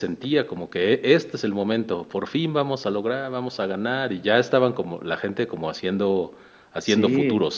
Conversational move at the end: taking over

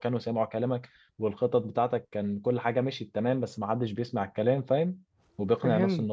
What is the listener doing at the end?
taking over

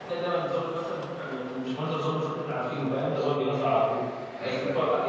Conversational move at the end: listening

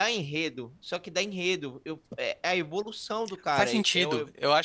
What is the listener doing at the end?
taking over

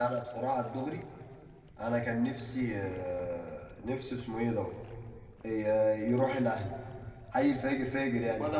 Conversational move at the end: taking over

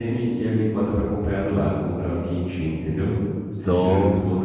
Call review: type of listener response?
listening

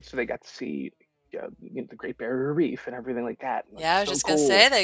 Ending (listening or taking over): taking over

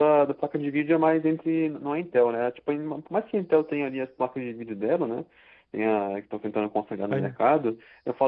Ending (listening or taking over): listening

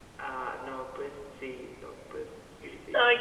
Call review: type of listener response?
taking over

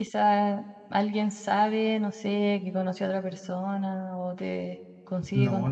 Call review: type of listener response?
taking over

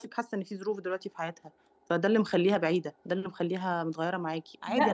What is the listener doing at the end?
taking over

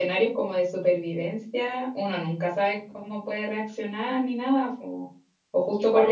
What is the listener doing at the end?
listening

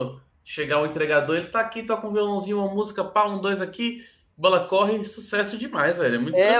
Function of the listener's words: taking over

